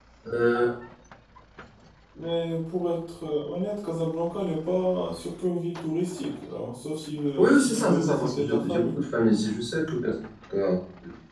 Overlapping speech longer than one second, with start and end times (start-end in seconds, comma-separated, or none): 7.4-9.0